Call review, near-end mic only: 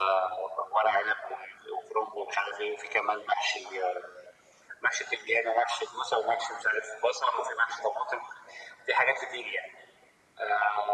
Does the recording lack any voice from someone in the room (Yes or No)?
Yes